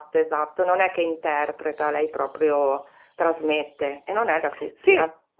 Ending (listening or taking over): taking over